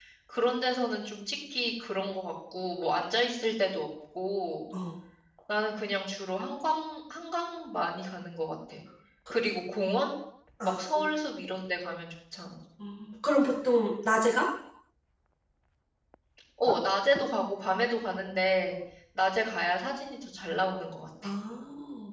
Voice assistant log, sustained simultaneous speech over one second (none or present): none